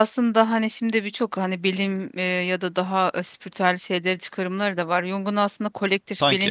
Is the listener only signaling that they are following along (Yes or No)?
Yes